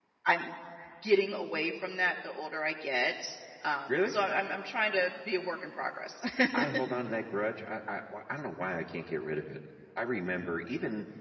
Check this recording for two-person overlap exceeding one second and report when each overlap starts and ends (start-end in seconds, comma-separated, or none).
none